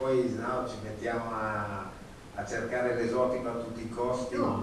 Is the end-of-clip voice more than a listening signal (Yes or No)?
Yes